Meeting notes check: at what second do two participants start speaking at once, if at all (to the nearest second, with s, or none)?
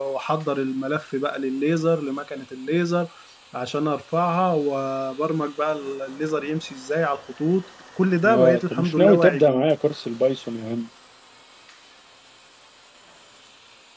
8 s